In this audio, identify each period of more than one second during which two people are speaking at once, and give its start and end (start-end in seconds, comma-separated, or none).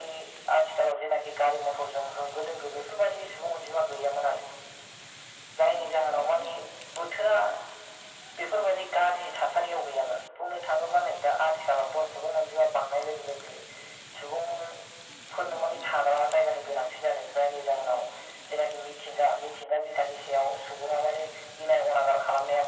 none